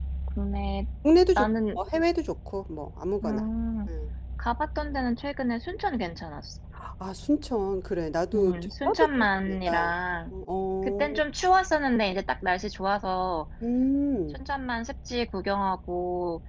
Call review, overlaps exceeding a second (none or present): present